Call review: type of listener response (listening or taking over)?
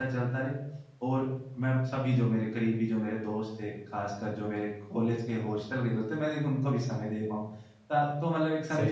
listening